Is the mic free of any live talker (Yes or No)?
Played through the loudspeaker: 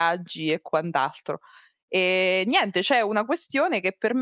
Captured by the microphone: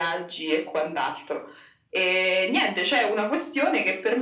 Yes